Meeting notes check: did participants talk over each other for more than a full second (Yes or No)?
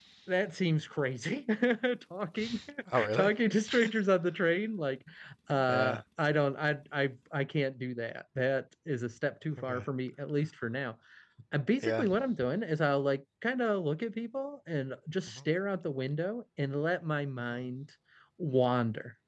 No